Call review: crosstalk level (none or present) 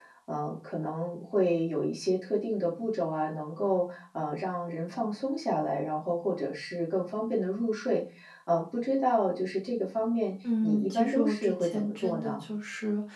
present